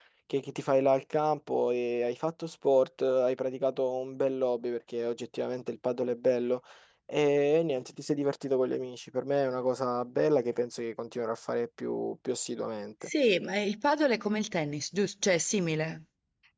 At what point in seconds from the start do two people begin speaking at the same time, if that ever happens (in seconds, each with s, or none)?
none